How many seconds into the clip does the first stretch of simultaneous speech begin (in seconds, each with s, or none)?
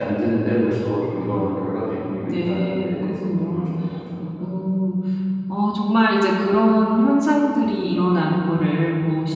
2.2 s